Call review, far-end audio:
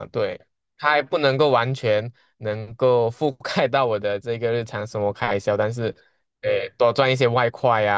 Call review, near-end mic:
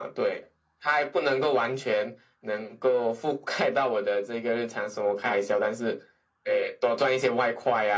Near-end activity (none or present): none